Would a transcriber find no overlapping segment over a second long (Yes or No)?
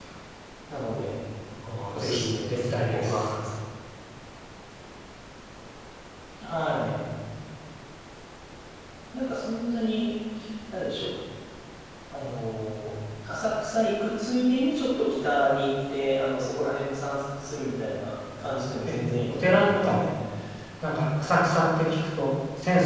No